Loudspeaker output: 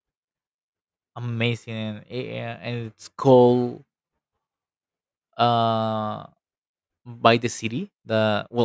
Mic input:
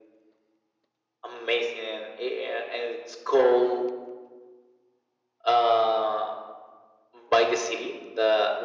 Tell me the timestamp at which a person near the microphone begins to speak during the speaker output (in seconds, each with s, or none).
none